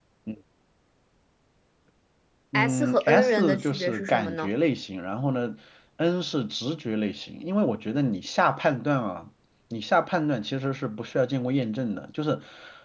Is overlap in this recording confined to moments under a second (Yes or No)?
No